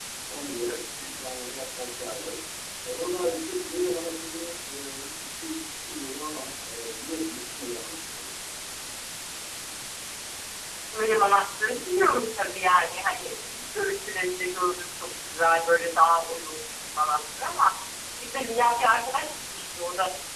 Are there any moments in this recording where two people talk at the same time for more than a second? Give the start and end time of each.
none

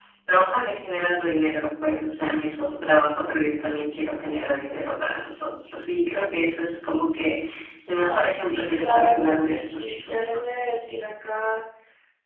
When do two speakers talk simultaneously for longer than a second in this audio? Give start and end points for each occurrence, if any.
7.9-10.4

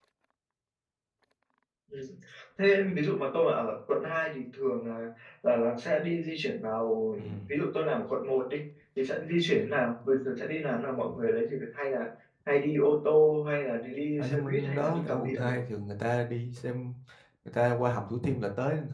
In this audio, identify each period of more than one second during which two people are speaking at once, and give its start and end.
14.2-15.5

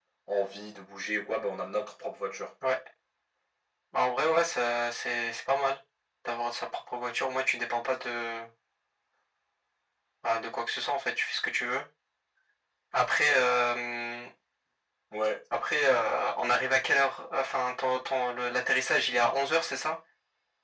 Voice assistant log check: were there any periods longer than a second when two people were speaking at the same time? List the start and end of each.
none

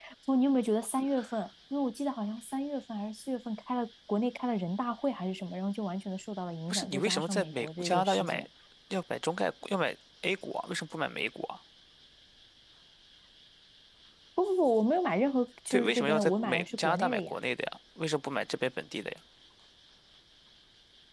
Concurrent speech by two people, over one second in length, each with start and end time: 6.7-8.4, 15.7-17.3

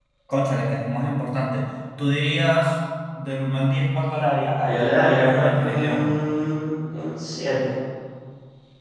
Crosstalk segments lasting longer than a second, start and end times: 4.6-6.1

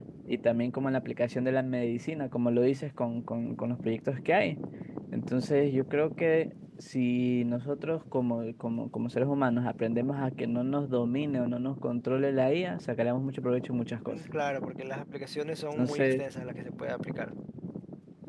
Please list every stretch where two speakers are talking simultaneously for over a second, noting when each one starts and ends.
none

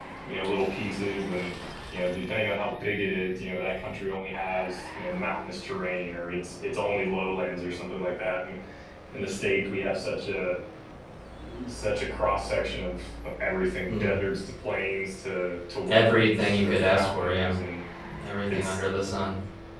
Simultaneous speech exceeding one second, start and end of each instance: 15.9-17.5

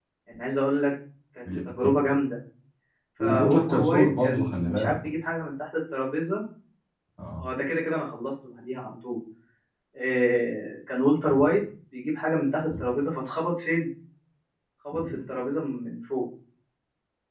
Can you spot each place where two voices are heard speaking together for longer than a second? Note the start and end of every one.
3.2-5.0

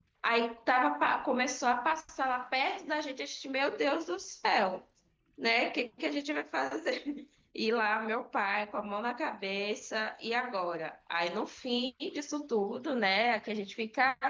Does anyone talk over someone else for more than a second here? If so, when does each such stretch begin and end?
none

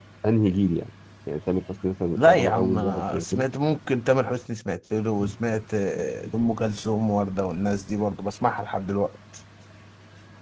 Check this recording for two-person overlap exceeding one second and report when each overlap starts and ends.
2.1-3.5

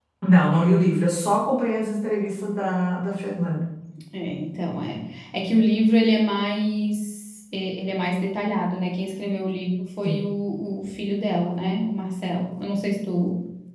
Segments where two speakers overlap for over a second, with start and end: none

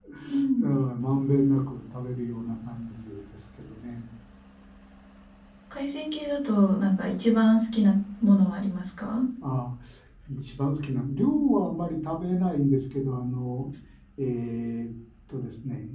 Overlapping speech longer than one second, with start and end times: none

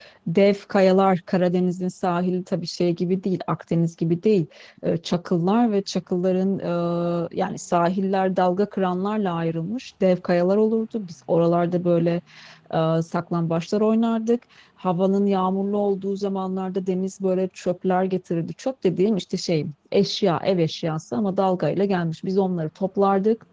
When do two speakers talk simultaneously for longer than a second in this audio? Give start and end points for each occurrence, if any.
none

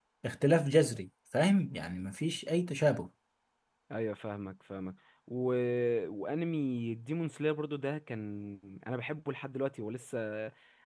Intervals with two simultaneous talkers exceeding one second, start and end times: none

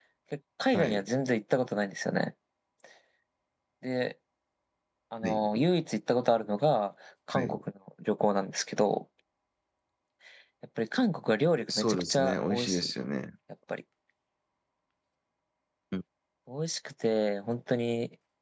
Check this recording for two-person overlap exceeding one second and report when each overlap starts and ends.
11.7-12.9

